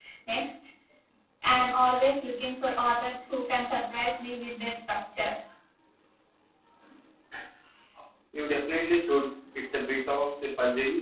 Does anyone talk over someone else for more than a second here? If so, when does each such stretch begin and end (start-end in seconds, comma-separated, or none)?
none